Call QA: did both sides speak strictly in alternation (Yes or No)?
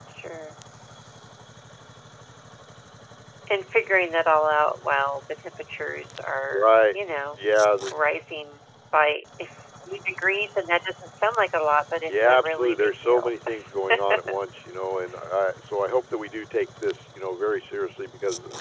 No